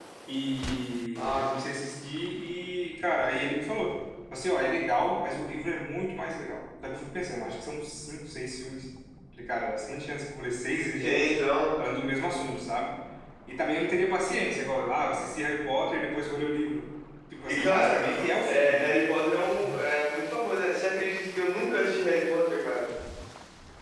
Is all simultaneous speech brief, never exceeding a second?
Yes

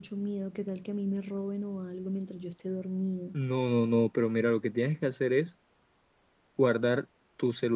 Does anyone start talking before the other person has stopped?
No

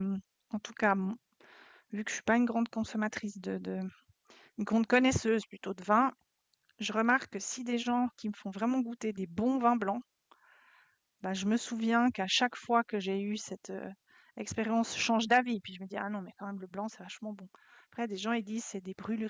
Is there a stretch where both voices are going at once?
No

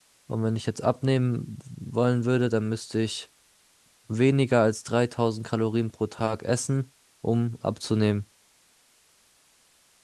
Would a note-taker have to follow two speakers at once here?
No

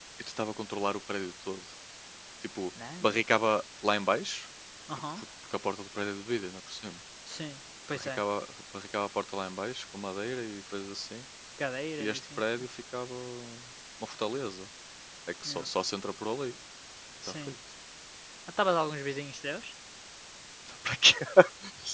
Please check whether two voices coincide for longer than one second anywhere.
No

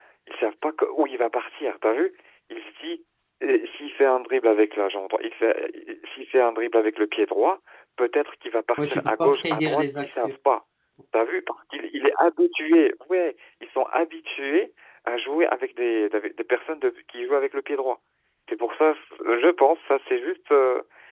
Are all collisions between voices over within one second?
No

